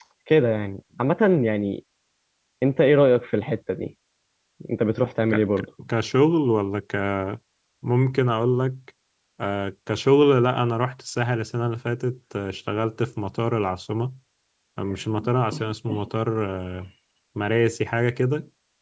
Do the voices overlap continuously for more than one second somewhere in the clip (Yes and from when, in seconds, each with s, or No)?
No